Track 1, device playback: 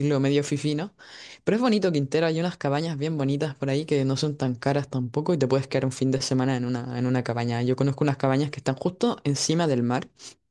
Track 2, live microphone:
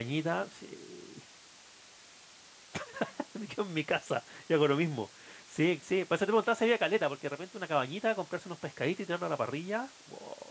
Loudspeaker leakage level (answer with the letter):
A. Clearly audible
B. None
B